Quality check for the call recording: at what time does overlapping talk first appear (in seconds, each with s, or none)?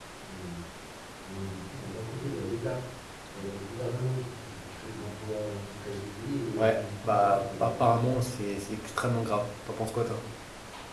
6.6 s